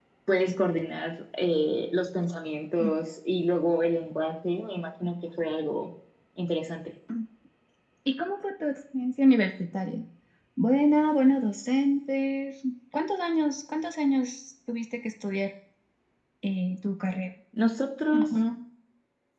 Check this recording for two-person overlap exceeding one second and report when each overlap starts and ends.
none

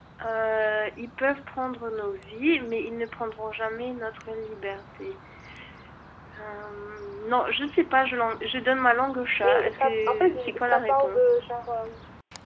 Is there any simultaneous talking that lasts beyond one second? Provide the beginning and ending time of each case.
9.4-11.2

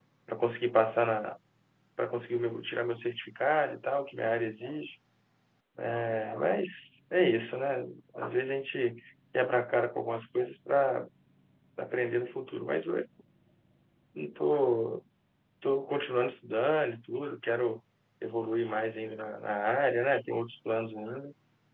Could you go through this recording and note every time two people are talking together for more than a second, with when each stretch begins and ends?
none

